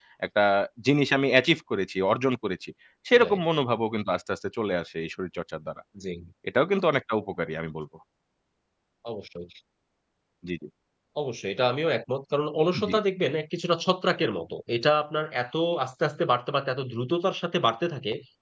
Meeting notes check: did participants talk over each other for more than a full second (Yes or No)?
No